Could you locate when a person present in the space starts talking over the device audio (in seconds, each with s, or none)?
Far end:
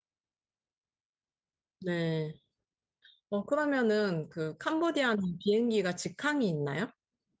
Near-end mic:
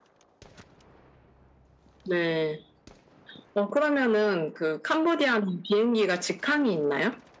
none